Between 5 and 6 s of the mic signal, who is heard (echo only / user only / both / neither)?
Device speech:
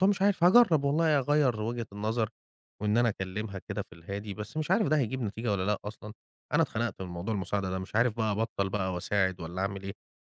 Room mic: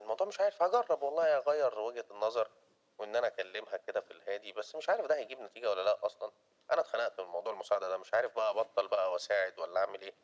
echo only